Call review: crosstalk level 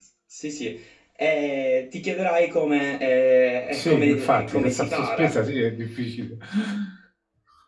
present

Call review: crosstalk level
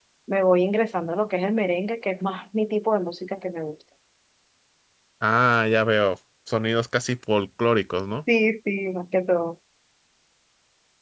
none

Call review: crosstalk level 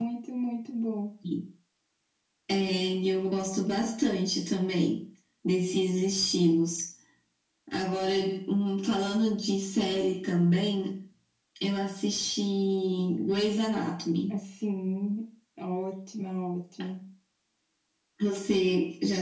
none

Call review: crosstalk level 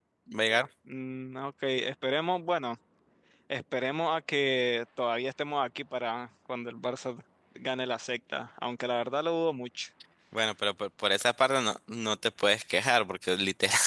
none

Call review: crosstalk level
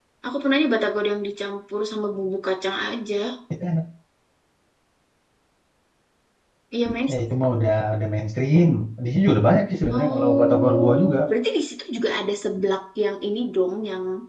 present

